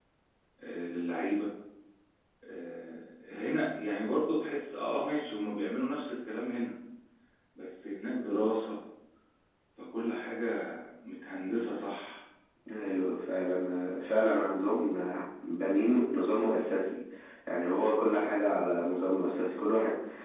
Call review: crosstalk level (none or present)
none